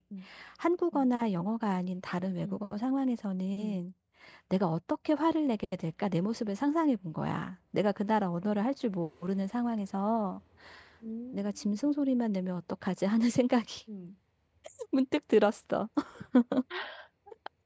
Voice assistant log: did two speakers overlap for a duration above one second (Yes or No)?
No